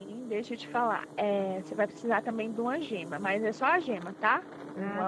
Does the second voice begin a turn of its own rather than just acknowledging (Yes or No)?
No